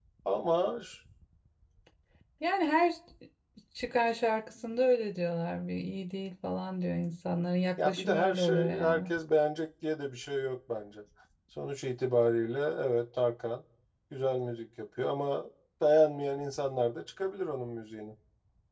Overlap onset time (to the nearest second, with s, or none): 8 s